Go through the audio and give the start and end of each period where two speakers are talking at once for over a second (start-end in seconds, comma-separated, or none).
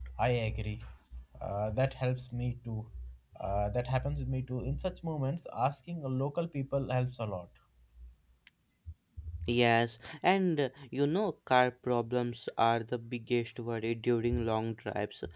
none